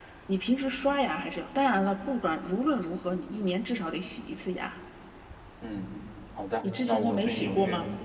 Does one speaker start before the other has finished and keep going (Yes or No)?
Yes